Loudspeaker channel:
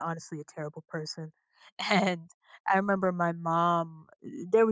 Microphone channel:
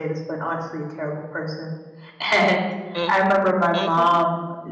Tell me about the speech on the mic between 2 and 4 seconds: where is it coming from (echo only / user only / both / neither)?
both